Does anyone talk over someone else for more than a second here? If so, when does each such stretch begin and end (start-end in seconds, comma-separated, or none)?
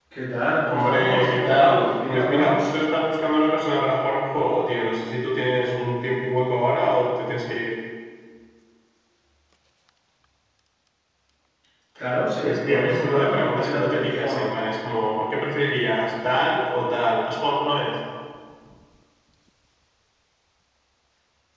0.7-2.7, 12.4-14.5